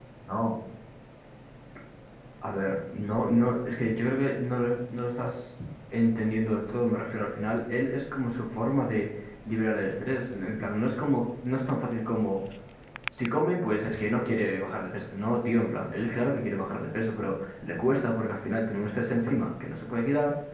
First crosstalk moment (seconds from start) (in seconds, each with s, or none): none